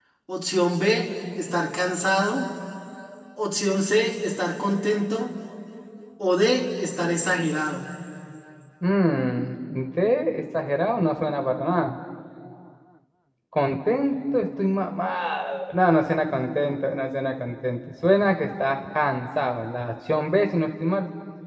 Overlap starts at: none

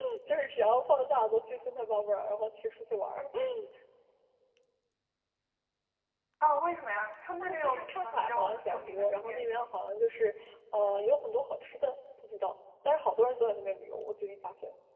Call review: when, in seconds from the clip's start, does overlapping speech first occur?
7 s

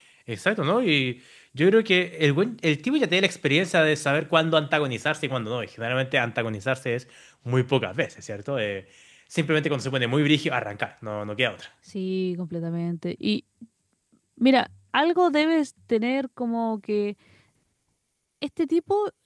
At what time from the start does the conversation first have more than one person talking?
none

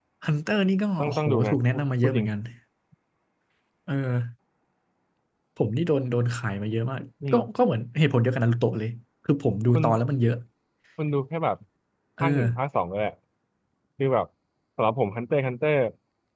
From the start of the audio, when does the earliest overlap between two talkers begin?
1 s

